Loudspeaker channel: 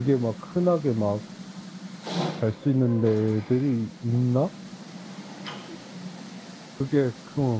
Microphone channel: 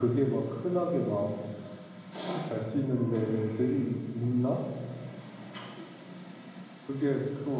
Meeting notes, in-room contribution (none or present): none